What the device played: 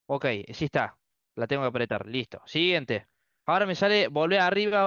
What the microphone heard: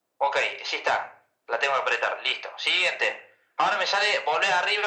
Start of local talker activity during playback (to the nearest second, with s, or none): none